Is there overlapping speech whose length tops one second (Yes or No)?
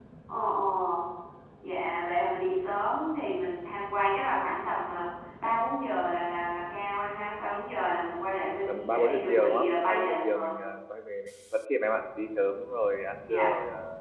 Yes